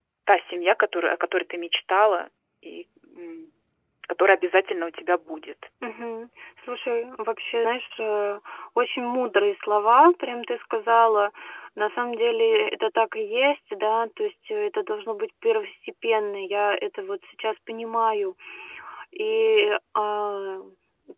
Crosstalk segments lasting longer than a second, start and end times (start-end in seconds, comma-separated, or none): none